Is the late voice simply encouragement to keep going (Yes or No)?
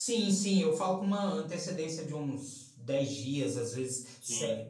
Yes